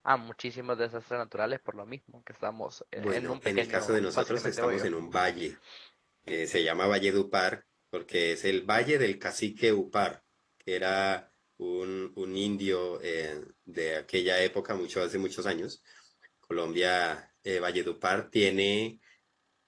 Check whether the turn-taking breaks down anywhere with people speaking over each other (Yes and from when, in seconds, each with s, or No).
Yes, from 3.0 s